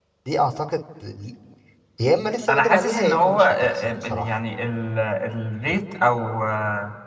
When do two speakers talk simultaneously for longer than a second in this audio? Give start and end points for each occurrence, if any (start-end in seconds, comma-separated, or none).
2.5-4.3